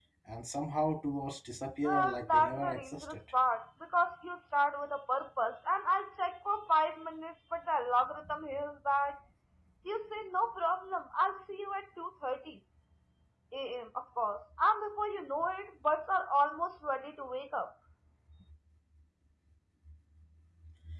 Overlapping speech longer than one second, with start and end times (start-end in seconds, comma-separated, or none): 1.8-3.2